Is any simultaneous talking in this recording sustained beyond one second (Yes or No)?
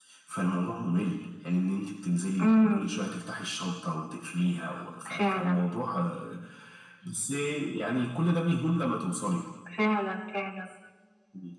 No